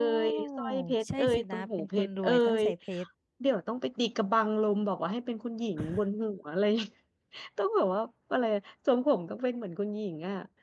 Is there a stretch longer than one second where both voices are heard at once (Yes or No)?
Yes